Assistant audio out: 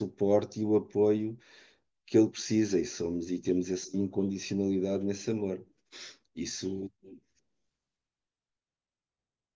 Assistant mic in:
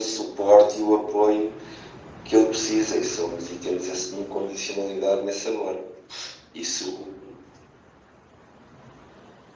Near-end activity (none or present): none